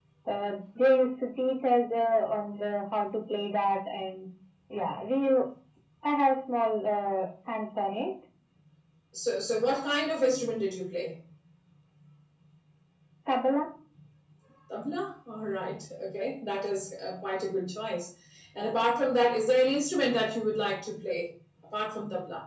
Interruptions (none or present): none